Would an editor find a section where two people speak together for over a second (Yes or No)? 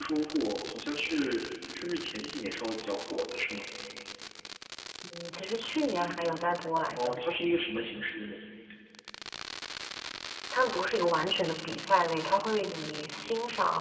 No